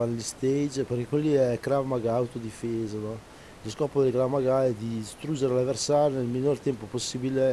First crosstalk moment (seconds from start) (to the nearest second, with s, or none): none